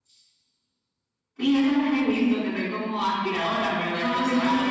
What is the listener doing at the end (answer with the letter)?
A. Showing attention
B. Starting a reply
B